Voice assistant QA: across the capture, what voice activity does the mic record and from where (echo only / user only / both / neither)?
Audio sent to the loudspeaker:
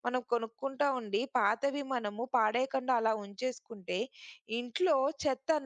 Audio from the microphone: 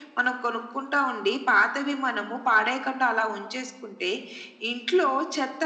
echo only